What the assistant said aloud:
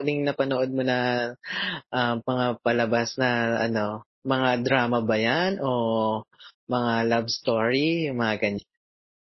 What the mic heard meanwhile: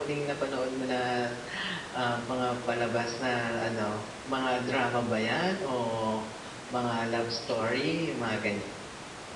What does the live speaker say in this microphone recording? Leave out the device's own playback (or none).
none